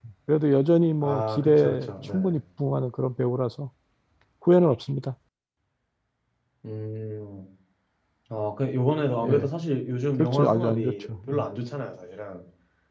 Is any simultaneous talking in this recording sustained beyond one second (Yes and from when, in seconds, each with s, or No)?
Yes, from 1.0 s